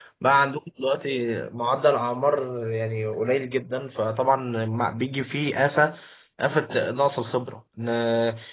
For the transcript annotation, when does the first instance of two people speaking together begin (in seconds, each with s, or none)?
none